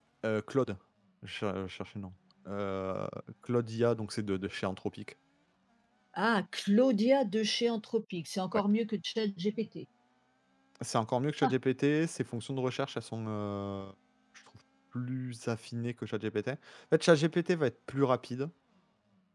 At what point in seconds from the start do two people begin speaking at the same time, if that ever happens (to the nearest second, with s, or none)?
none